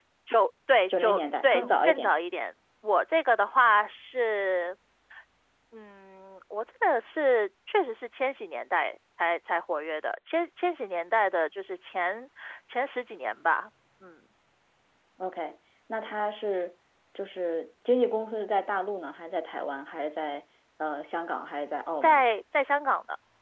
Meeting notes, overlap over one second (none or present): present